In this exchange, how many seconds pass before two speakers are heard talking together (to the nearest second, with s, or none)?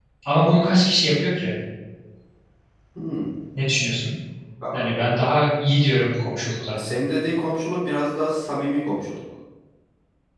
none